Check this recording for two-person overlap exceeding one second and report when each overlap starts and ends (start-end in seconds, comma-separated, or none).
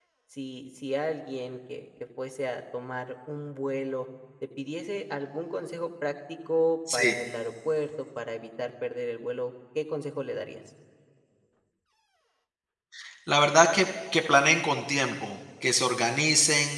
none